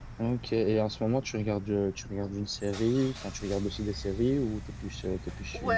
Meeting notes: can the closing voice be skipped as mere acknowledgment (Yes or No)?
No